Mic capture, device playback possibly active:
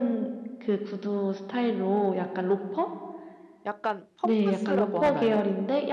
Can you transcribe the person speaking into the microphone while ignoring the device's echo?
약간 펌프스라고 하나요?

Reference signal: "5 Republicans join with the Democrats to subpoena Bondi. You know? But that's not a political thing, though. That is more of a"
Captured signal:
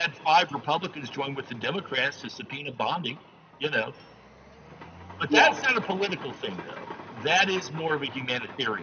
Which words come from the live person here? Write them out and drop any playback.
yeah.

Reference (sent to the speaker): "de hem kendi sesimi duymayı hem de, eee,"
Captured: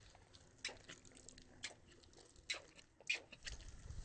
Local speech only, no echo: none

